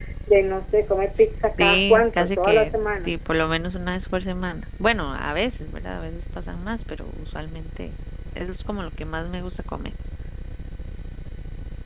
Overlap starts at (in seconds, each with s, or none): 1.6 s